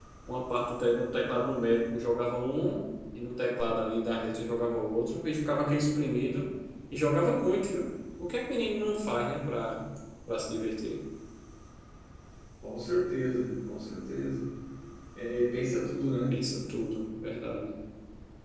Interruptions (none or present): none